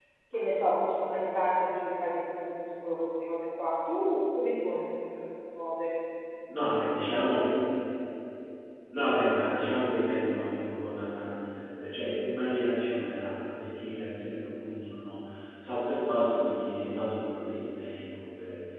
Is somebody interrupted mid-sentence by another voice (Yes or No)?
No